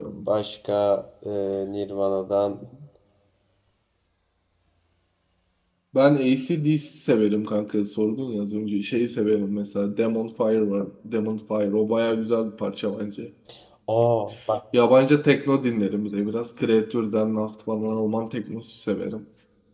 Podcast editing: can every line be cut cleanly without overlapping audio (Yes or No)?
Yes